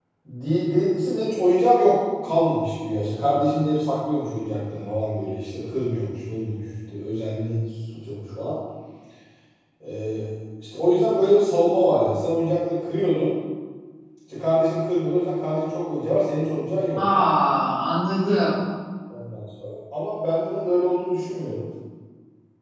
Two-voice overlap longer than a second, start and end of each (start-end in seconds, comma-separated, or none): none